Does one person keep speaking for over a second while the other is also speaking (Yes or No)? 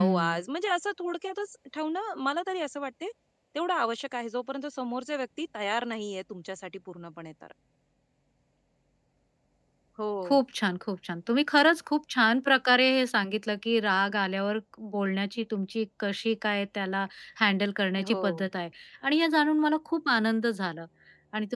No